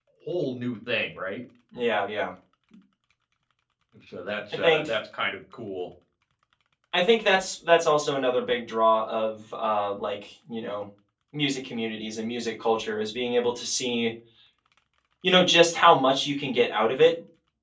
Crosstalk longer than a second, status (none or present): none